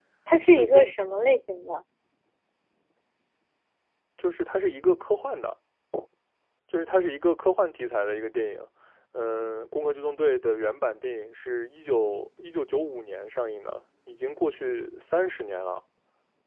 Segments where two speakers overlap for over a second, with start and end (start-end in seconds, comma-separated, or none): none